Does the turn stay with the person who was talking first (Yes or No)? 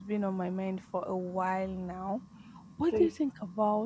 Yes